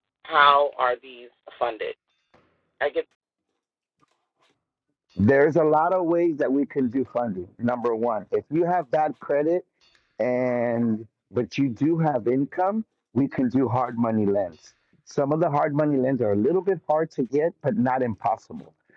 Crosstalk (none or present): none